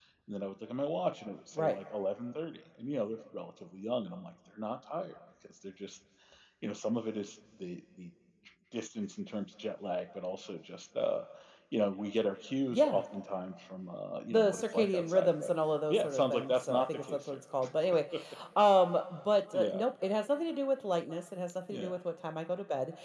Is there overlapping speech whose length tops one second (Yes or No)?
Yes